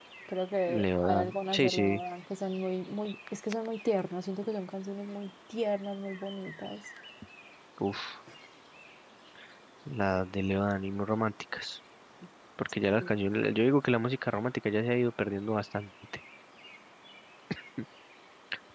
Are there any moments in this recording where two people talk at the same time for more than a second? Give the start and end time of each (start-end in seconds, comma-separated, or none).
0.7-2.0